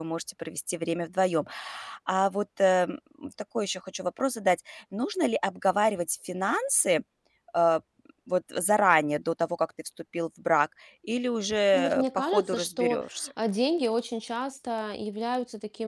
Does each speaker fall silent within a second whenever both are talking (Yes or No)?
No